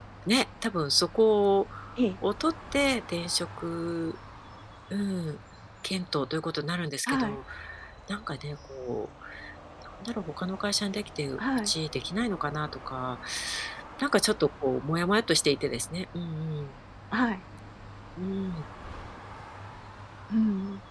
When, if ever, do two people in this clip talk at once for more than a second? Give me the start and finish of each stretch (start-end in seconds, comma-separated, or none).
none